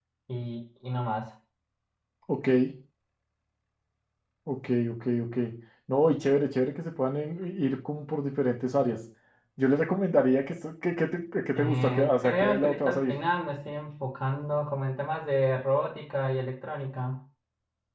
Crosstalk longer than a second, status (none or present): present